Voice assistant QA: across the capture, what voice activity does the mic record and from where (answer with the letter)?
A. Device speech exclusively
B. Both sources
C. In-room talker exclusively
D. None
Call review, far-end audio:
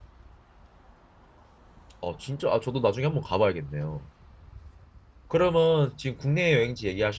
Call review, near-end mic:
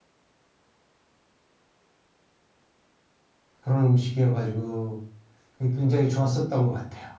C